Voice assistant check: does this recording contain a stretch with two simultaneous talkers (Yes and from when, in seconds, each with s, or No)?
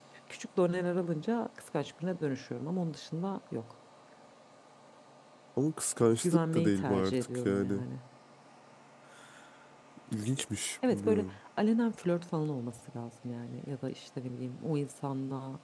Yes, from 6.2 s